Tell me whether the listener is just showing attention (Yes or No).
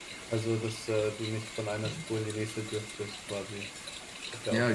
No